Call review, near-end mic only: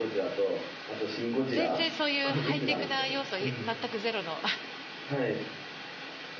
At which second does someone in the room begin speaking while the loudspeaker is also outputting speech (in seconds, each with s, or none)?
1.5 s